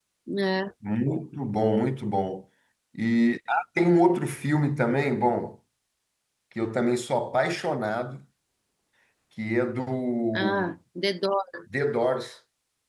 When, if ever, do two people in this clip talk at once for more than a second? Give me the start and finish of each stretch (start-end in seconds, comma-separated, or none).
none